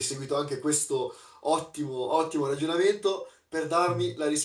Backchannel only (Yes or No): Yes